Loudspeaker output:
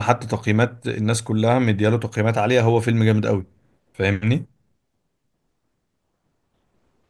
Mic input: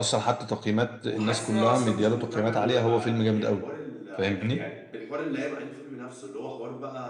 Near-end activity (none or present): present